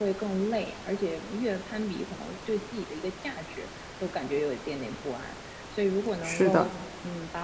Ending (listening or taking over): listening